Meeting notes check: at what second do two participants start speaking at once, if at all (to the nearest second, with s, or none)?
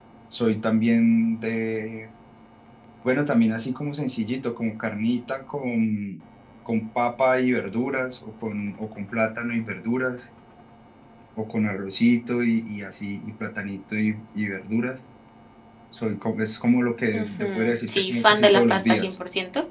17 s